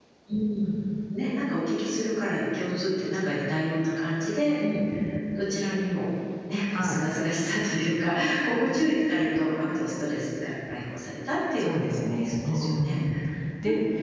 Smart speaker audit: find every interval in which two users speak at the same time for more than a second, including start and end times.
11.6-13.0

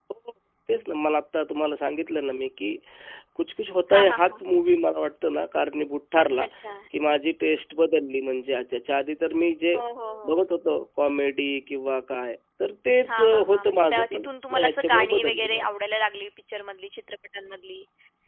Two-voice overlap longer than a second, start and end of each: 13.1-15.6

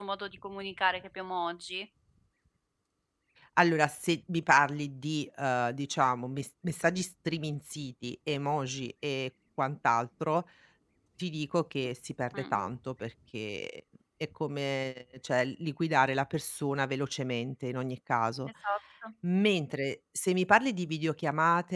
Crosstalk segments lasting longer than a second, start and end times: none

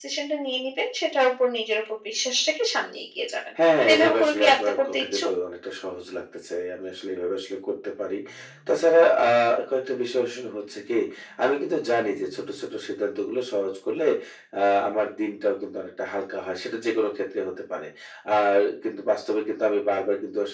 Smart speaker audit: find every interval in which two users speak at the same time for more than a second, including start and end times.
3.9-5.3

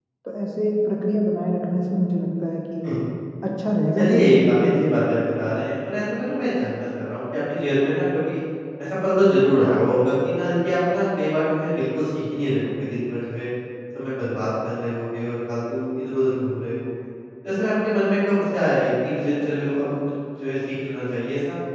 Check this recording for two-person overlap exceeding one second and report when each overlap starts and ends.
4.0-5.4

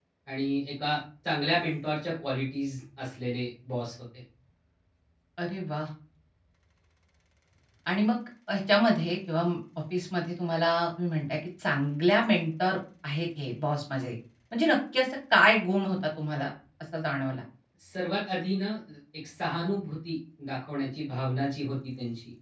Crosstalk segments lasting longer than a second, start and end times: none

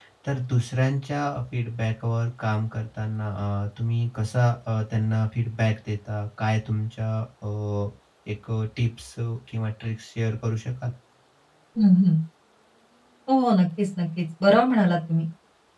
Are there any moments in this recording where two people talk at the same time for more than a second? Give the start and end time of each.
none

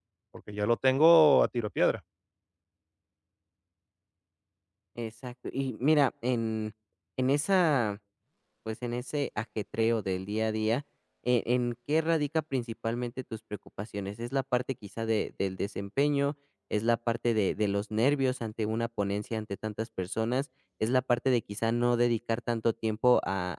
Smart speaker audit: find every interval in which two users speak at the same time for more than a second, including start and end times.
none

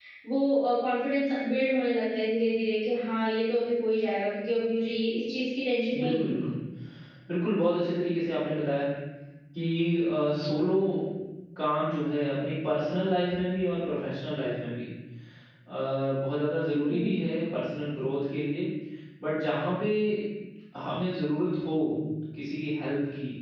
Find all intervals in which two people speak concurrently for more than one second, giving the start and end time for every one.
none

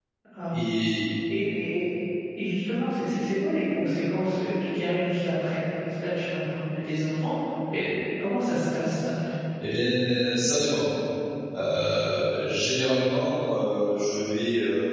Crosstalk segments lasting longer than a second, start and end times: none

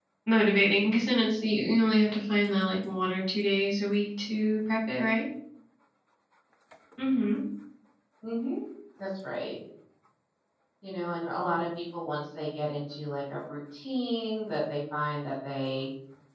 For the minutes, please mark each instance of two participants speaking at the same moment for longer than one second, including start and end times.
none

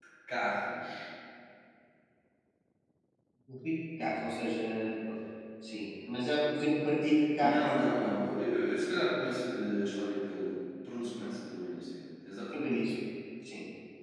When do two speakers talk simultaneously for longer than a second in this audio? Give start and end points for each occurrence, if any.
none

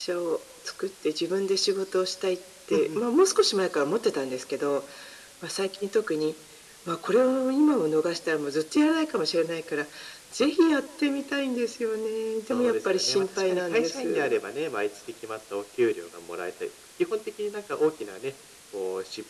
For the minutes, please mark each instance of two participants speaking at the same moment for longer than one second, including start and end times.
12.5-14.3

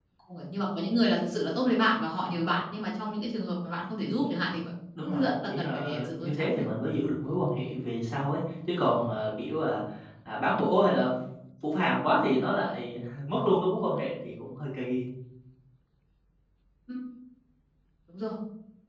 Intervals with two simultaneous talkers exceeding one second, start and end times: 5.0-6.7

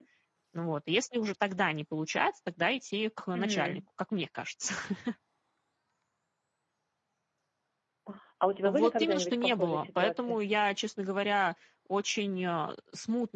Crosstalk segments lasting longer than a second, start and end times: 8.7-10.4

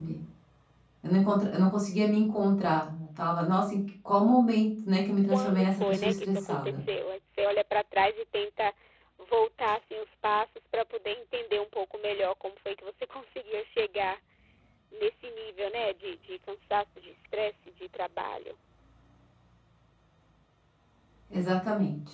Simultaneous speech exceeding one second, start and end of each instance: 5.2-6.8

